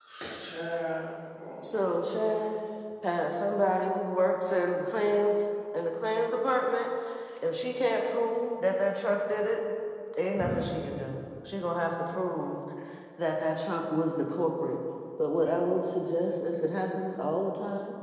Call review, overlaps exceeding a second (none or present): none